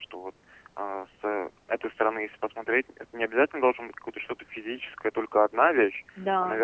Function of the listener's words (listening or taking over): listening